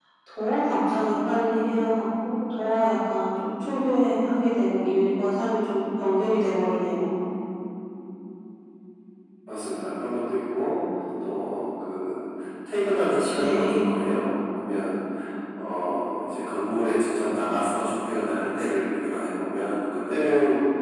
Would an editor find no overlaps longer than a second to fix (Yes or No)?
Yes